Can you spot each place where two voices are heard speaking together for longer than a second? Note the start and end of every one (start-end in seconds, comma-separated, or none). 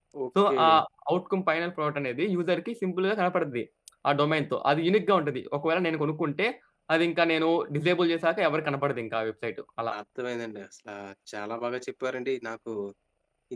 none